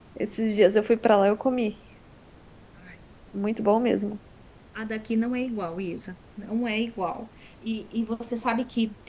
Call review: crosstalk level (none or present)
none